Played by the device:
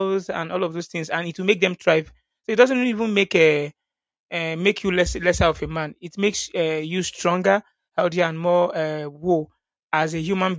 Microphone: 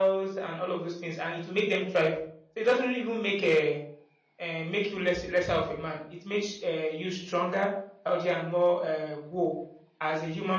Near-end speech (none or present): none